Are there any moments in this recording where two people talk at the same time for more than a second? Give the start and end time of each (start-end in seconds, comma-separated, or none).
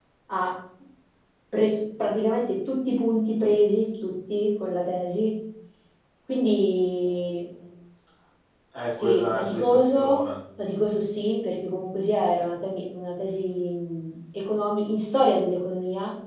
9.0-10.2